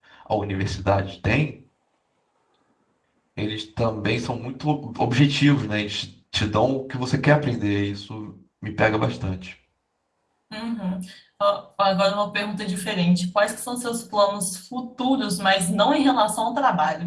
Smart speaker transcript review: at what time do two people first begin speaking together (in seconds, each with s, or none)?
none